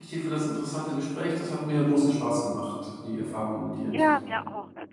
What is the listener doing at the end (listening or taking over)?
taking over